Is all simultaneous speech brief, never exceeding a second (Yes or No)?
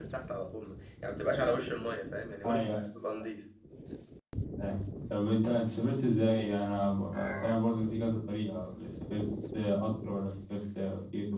Yes